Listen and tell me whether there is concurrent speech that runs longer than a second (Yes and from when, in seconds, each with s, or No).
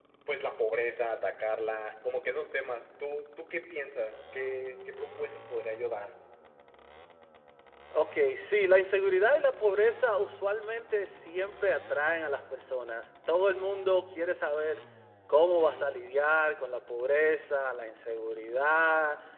No